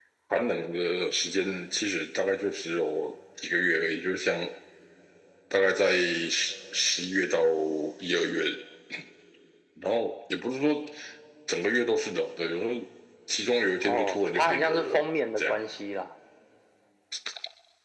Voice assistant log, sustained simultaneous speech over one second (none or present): present